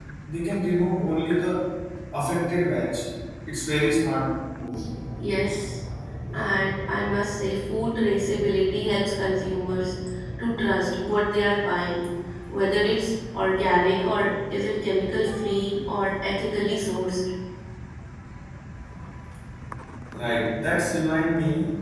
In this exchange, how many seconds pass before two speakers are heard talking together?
none

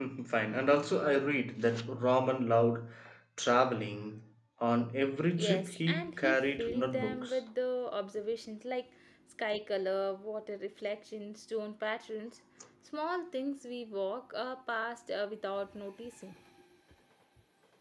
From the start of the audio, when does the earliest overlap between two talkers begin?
5.4 s

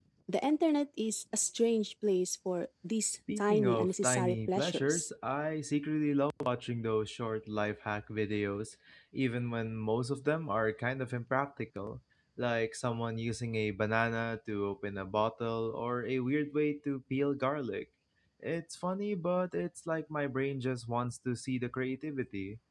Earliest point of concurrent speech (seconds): 3.4 s

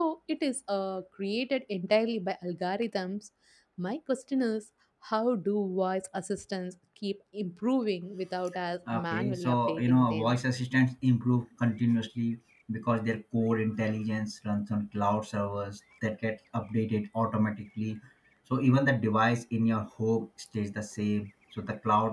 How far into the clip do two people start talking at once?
8.9 s

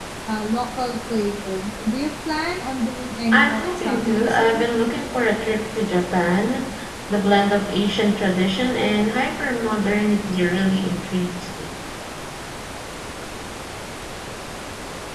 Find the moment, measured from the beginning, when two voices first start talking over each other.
3.3 s

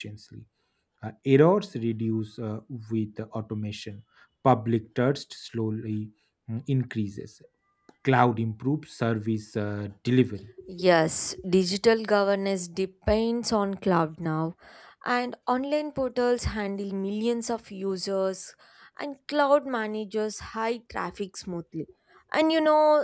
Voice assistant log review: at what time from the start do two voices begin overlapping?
none

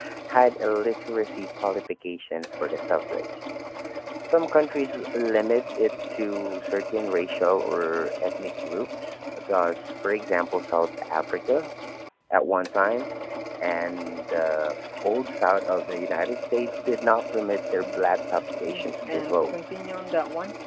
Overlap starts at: 18.3 s

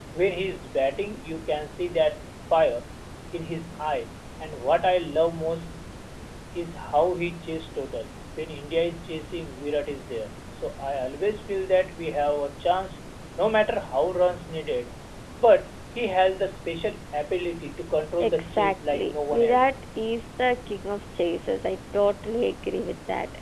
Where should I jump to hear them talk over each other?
18.2 s

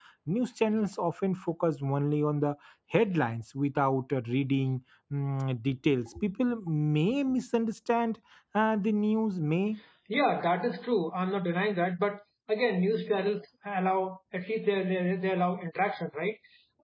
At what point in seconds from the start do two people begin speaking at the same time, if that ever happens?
none

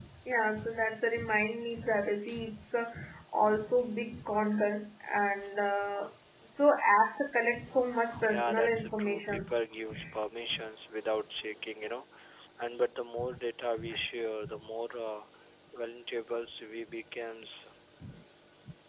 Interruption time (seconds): 8.3 s

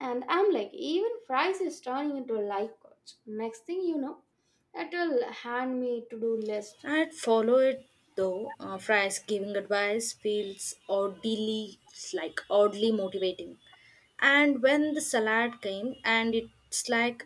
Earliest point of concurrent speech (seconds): none

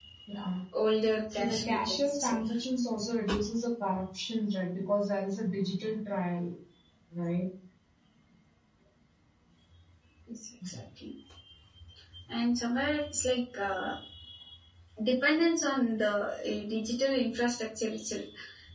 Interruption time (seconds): 1.3 s

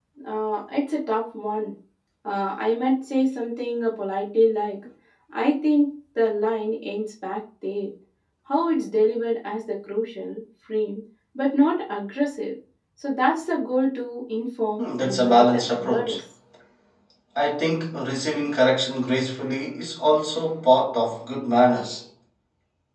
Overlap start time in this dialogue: 14.8 s

